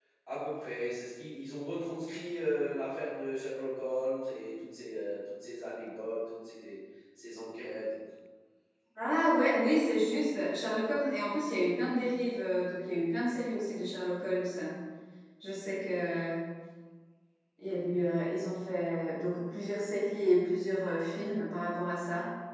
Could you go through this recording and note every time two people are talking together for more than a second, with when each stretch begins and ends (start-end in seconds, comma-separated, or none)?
none